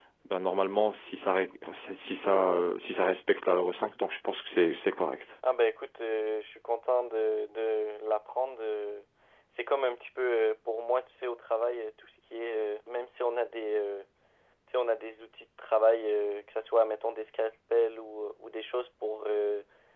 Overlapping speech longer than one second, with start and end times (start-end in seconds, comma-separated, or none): none